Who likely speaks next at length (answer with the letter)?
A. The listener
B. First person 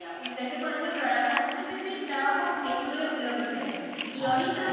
B